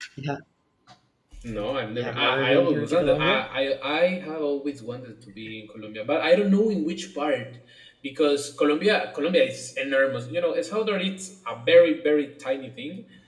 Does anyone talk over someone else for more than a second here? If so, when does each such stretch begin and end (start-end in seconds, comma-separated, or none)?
2.0-3.5